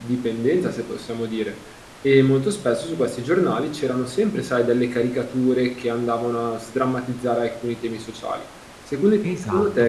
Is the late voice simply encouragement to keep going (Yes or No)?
No